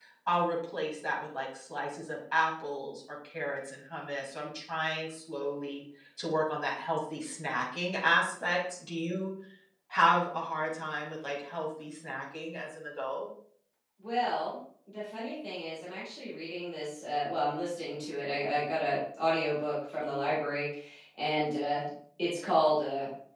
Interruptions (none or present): none